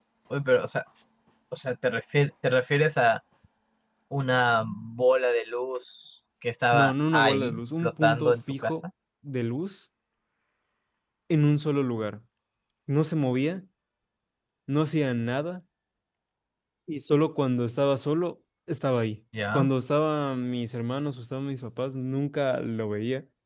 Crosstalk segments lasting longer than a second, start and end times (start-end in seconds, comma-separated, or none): 6.8-8.7